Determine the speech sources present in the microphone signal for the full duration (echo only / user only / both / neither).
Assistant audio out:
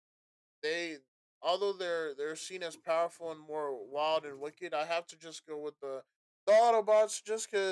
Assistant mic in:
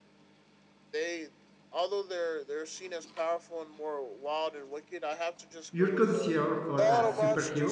both